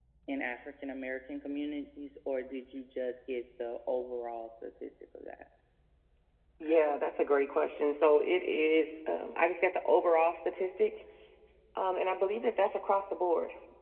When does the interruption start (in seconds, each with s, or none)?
none